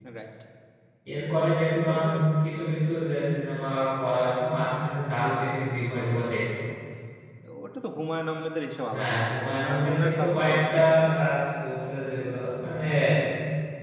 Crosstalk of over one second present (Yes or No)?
Yes